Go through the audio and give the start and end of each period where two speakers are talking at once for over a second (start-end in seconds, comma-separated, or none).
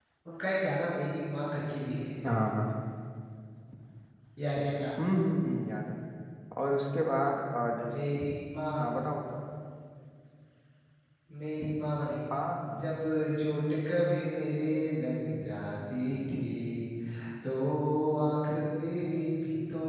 none